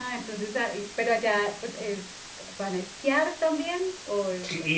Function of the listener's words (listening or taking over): taking over